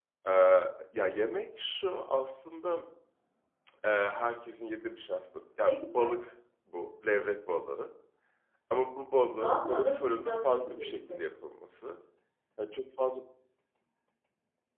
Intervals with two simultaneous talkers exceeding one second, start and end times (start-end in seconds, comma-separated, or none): 9.4-11.2